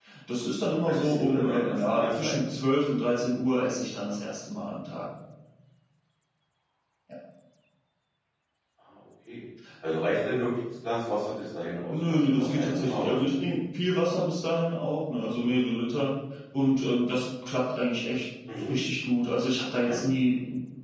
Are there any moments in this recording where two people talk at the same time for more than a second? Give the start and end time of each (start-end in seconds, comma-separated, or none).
0.8-2.3, 11.9-13.3